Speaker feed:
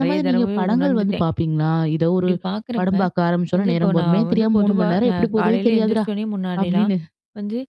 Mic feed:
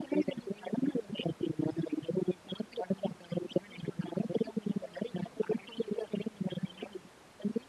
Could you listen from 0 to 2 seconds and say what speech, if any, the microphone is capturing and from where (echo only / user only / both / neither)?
echo only